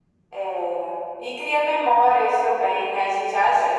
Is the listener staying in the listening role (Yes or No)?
Yes